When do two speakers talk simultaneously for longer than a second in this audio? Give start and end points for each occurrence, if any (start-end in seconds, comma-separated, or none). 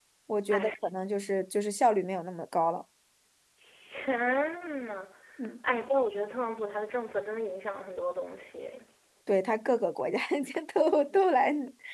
none